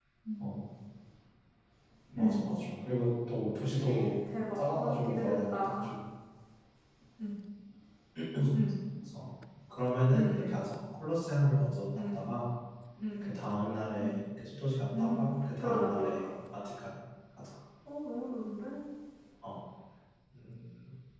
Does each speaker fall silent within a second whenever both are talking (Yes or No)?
No